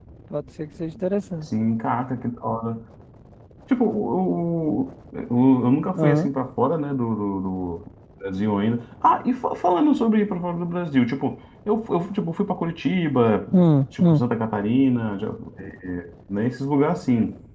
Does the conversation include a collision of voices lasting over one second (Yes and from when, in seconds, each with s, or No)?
No